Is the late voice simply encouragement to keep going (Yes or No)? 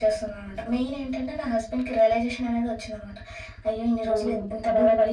No